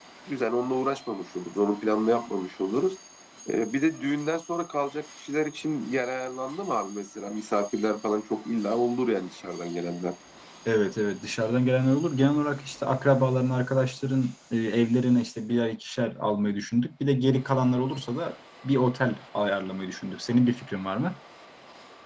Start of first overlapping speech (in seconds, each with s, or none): none